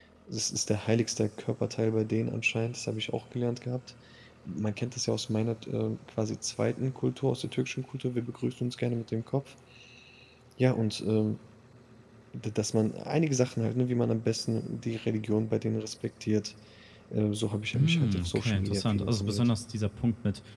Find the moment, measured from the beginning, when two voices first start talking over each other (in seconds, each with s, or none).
17.7 s